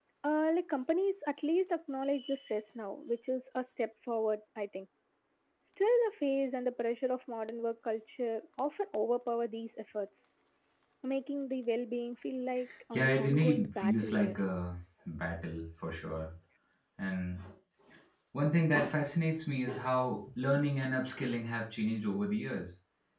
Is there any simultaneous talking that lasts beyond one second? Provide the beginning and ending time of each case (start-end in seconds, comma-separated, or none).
12.9-14.4